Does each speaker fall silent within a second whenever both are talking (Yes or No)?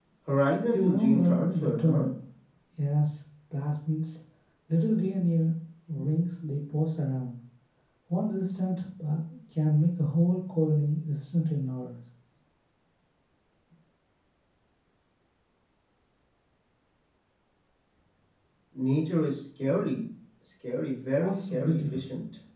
No